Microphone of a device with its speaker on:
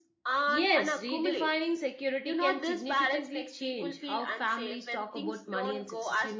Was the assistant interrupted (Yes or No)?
Yes